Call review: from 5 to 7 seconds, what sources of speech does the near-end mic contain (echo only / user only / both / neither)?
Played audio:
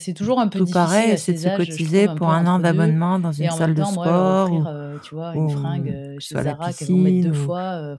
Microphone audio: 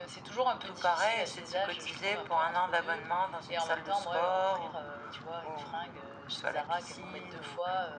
echo only